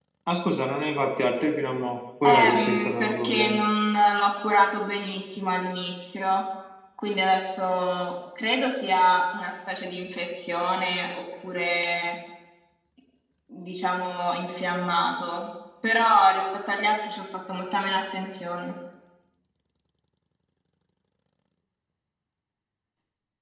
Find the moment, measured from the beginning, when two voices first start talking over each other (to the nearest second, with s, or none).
2 s